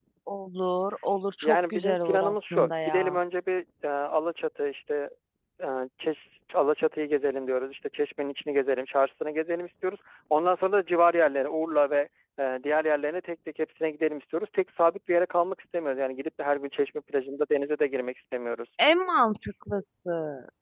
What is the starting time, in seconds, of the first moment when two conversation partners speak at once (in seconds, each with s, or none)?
1.4 s